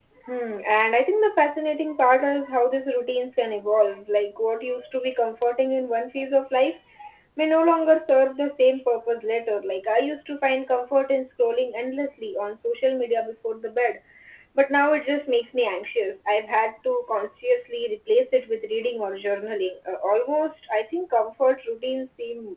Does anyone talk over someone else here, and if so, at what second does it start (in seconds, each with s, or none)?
none